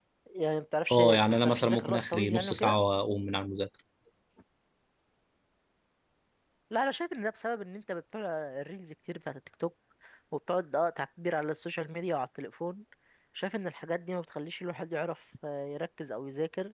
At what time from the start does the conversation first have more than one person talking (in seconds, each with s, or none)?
0.9 s